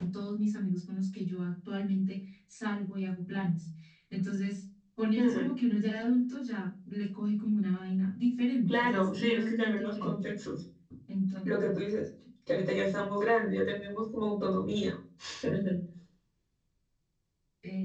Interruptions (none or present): present